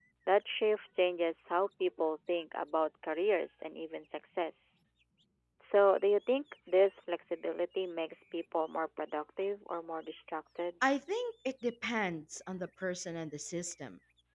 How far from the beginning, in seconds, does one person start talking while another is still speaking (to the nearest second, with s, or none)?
none